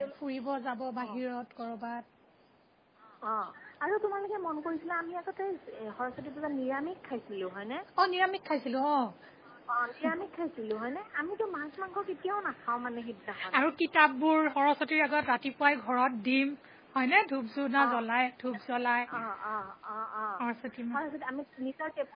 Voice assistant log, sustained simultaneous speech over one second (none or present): none